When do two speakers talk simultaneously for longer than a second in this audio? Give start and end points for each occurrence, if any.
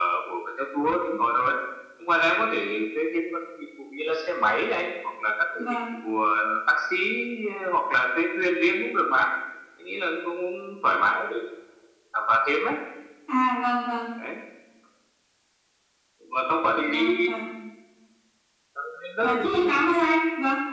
none

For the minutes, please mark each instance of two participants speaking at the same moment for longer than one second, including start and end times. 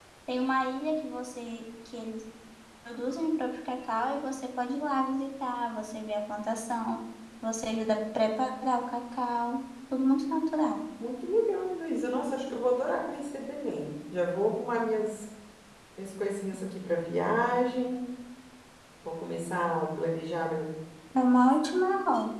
none

